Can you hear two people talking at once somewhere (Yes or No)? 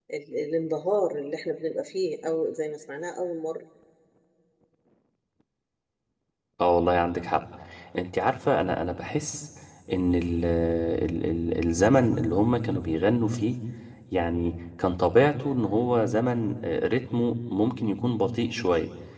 No